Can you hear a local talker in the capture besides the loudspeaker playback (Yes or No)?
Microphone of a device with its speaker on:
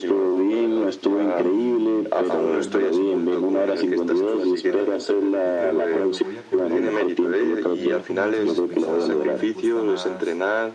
Yes